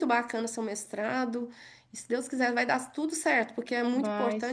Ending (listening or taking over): listening